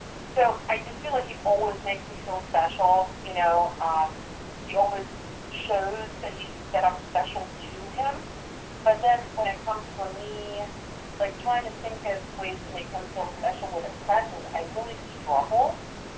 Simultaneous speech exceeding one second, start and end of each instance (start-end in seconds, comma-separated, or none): 12.7-14.2